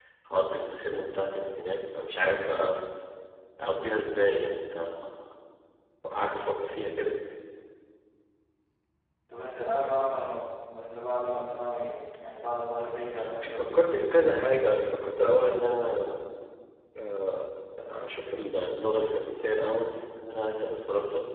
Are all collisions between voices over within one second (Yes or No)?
Yes